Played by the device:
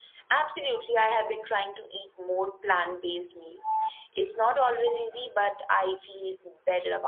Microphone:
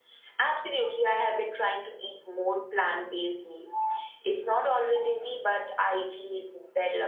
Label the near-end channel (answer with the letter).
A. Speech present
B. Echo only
B